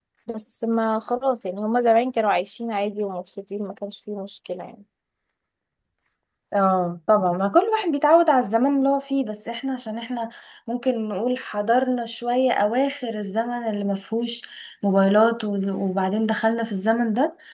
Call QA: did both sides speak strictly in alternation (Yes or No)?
Yes